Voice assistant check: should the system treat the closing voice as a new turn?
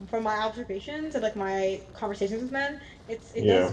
No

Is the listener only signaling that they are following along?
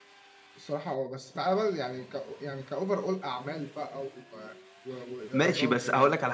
No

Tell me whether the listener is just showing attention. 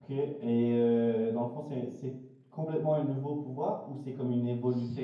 No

